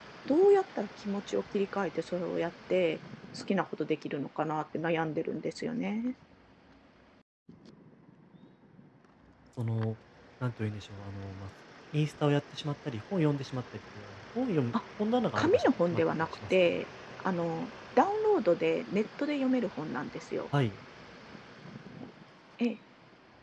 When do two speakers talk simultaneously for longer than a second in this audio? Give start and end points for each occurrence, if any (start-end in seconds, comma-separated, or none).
15.3-16.8